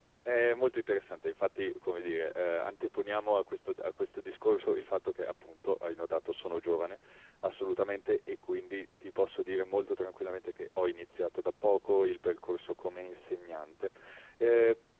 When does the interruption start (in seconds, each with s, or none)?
none